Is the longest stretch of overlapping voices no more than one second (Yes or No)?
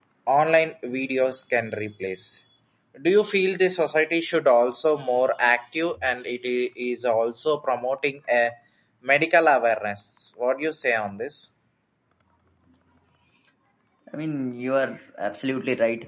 Yes